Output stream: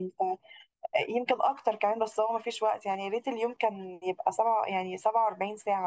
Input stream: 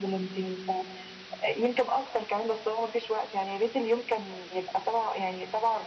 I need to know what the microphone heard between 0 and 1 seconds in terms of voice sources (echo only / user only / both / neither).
echo only